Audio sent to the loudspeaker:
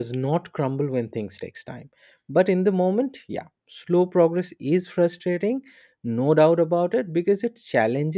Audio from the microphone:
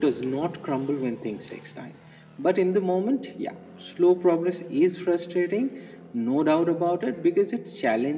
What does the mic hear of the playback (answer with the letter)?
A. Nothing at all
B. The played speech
B